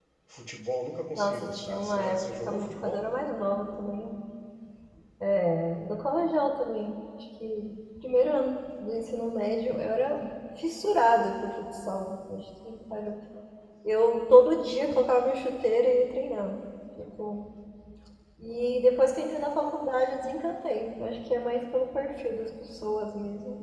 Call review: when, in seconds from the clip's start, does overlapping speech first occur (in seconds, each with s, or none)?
1.1 s